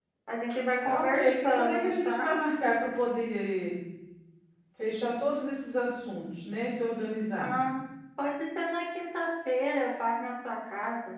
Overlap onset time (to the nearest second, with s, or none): 1 s